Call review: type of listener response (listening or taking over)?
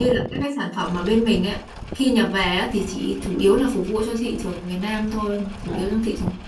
taking over